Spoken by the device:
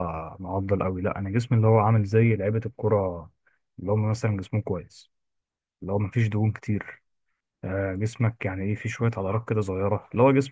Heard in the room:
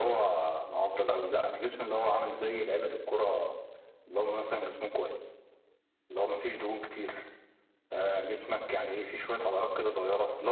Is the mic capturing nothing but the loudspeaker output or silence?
Yes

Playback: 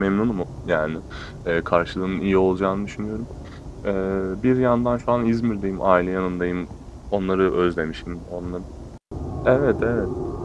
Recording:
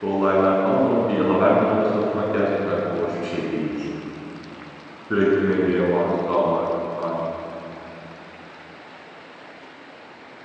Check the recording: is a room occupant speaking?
Yes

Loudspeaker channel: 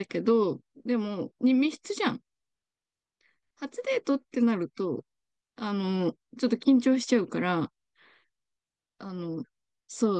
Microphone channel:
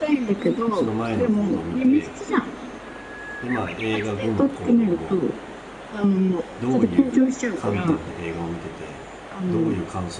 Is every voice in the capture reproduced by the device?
No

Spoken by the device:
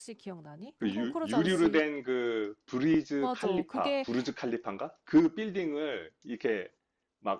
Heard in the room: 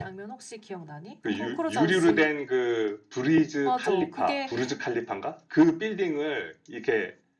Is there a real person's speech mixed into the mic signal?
No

